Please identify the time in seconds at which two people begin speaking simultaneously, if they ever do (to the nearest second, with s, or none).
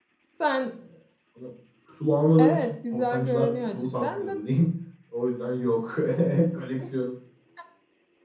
2 s